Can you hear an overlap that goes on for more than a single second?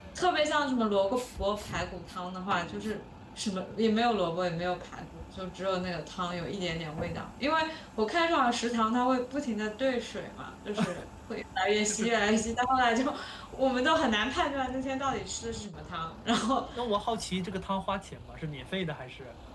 No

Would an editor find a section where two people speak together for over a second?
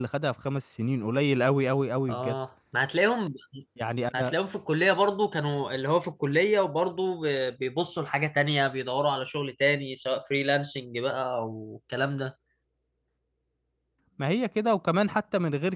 No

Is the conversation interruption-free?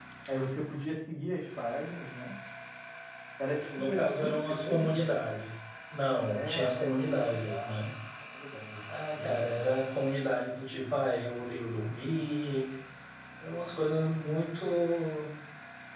No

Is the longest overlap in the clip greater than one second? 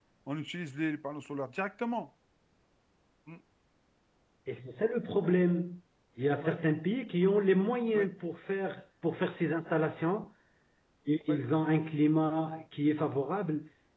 No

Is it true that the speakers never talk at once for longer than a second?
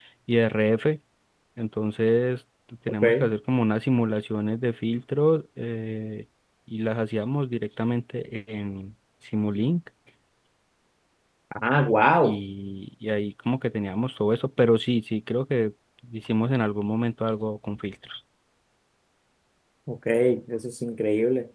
Yes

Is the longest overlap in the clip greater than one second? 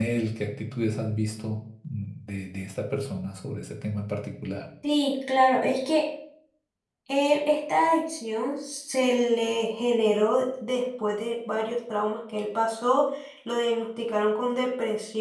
No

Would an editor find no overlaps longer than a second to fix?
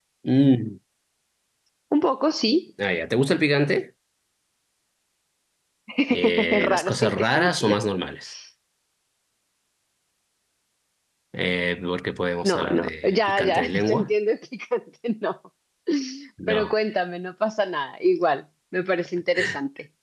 No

